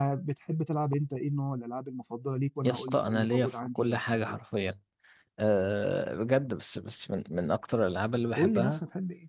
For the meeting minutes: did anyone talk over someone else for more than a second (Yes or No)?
Yes